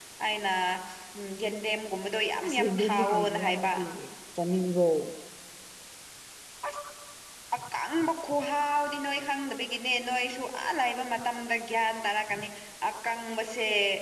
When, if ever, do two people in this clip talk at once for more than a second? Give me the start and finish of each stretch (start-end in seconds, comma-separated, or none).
2.5-3.7